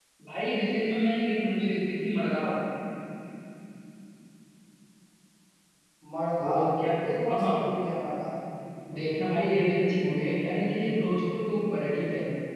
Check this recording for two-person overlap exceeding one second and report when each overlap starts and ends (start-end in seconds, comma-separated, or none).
none